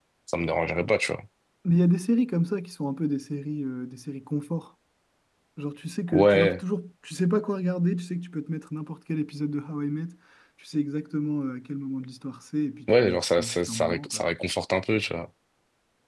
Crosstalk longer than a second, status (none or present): present